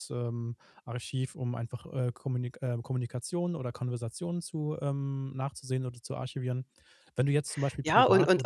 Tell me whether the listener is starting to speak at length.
Yes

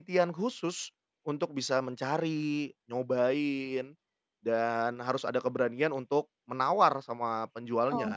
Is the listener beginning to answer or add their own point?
Yes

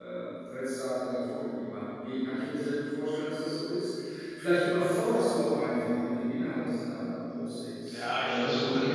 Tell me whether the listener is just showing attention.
No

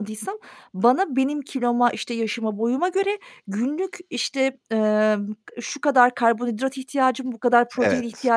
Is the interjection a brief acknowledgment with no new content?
Yes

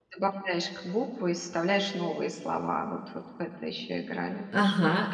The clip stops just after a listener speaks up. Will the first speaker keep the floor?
No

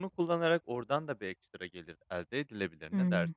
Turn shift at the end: Yes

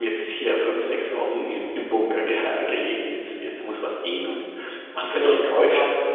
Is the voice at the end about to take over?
Yes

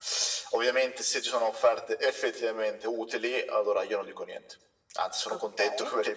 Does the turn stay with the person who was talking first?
Yes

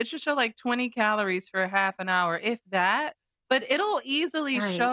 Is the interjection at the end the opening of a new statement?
No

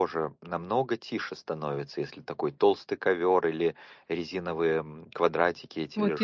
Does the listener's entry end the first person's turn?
Yes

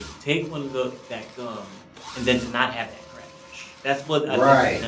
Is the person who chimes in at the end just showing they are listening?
No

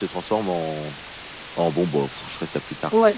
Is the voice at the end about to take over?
Yes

